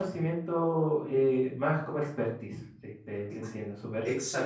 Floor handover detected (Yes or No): Yes